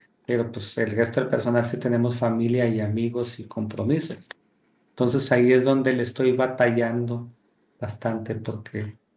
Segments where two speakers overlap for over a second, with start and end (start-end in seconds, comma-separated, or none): none